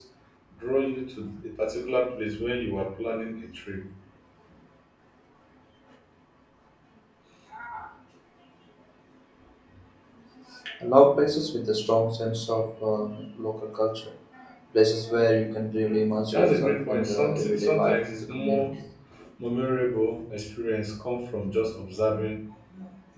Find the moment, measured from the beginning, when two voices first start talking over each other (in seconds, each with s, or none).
16.3 s